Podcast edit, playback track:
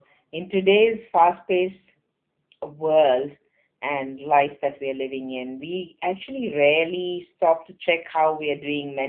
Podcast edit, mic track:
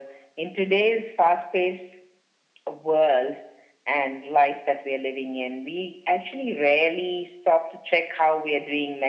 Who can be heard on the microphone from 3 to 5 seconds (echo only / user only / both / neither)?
echo only